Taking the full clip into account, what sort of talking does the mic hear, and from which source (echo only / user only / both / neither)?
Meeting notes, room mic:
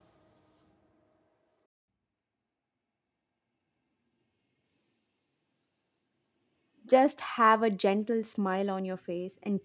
user only